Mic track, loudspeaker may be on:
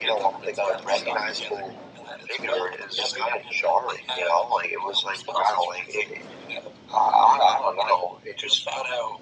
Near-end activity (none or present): none